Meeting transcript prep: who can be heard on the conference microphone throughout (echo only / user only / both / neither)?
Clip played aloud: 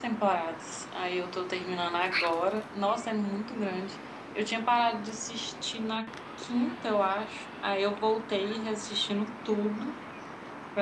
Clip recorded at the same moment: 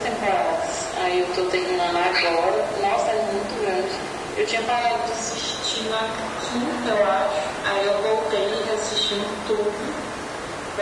echo only